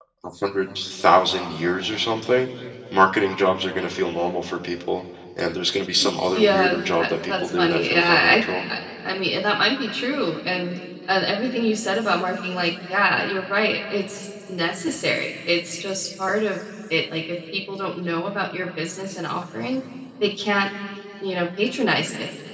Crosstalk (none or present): present